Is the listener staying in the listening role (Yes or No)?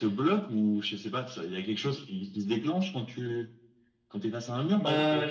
No